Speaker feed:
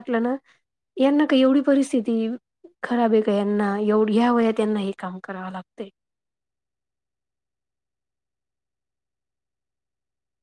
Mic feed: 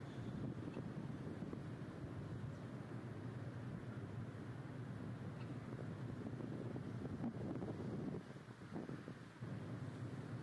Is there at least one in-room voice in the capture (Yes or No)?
No